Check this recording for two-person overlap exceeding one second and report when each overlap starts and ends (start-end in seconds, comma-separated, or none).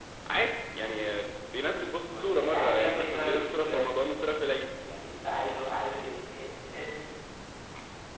2.1-4.0